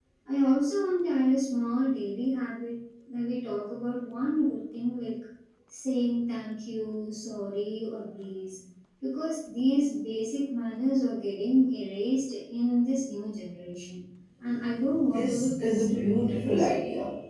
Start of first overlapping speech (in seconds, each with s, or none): 15.1 s